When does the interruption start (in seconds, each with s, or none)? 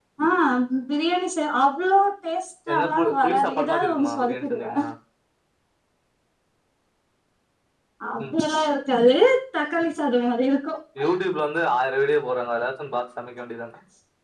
2.7 s